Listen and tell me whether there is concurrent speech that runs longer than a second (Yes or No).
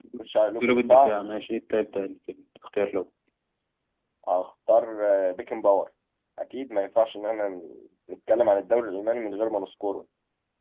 No